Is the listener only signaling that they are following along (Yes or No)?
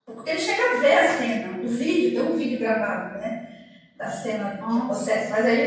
Yes